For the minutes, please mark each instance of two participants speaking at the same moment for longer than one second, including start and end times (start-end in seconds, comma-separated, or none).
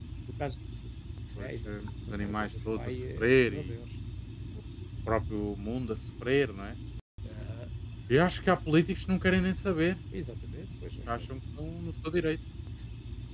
1.4-3.7